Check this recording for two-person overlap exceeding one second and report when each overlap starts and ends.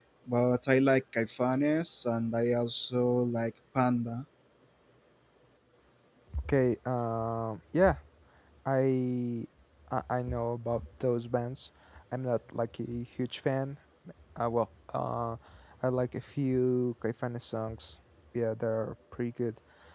none

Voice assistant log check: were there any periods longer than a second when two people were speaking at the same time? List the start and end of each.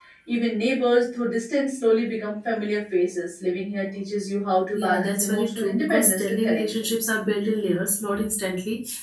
4.8-6.9

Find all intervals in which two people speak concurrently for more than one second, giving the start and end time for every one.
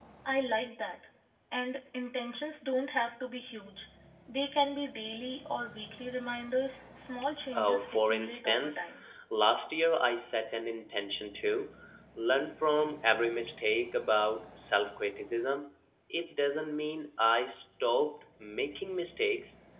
7.5-8.8

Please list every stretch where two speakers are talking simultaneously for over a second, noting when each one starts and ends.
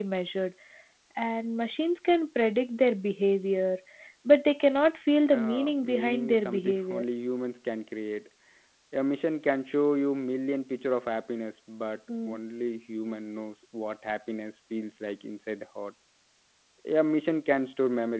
5.4-7.0

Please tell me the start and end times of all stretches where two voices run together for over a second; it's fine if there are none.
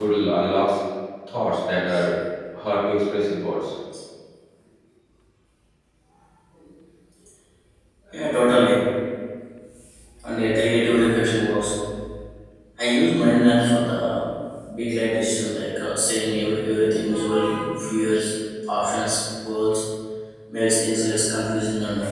none

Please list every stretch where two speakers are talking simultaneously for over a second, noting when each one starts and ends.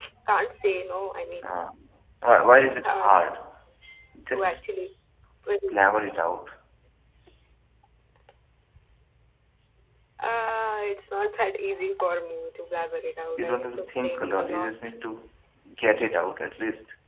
13.3-14.7

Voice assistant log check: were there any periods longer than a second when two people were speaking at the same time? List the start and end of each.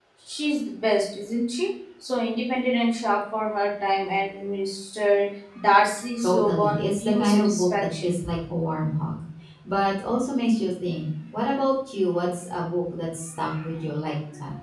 6.2-8.1

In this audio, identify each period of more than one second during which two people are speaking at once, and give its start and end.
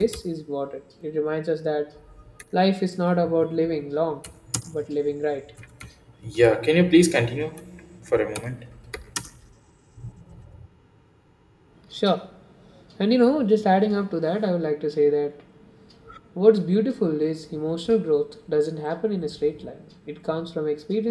none

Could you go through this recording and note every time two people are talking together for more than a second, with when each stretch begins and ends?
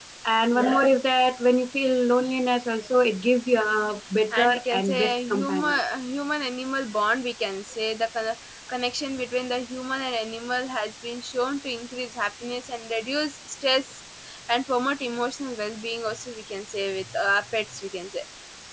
4.3-5.8

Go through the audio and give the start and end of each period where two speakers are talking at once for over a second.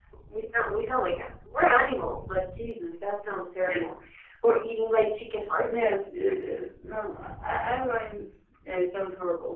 none

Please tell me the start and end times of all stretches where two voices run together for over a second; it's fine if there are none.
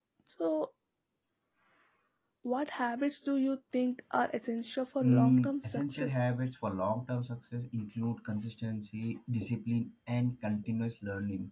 5.0-6.2

